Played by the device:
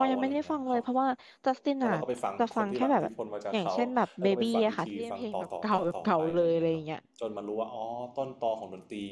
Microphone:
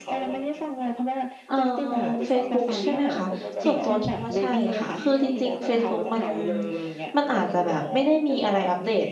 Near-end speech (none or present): present